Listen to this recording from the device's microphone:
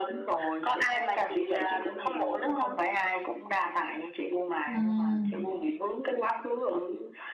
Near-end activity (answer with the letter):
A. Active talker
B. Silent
A